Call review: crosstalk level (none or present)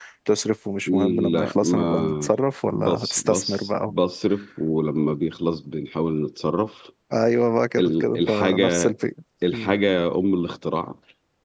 present